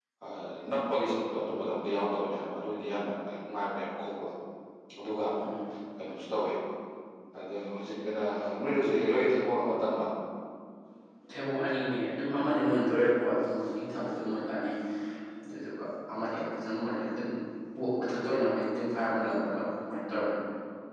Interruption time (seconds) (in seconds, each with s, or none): none